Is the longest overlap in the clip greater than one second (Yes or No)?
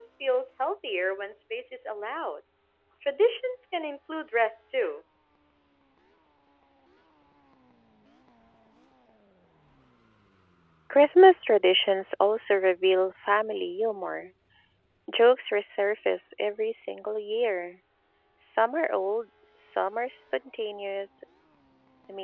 No